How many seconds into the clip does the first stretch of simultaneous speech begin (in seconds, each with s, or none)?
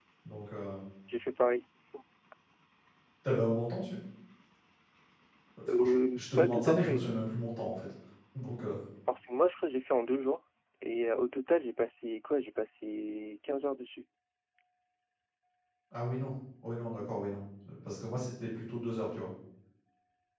5.7 s